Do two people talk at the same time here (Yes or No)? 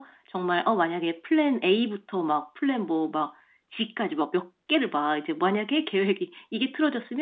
No